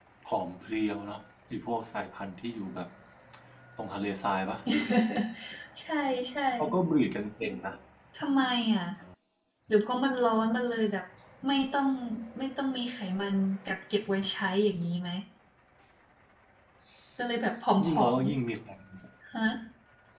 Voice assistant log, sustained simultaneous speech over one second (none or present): none